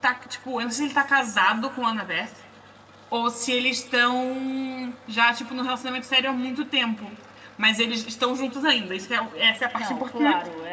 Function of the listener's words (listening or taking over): taking over